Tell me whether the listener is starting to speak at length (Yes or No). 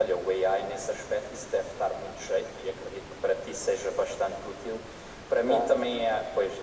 No